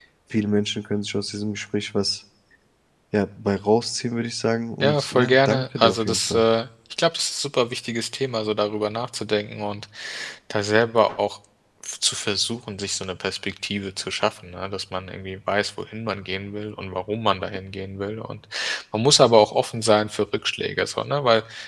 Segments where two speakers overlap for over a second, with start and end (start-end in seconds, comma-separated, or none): 4.8-6.4